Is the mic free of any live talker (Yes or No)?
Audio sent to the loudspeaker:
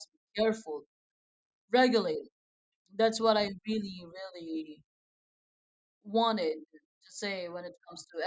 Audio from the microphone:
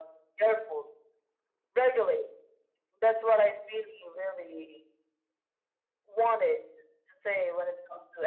Yes